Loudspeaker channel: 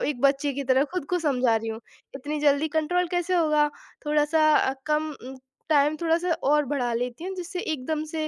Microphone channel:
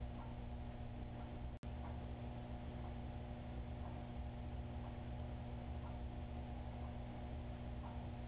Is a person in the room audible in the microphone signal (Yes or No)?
No